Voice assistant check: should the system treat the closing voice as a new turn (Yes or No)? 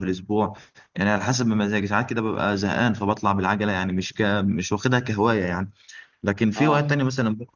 No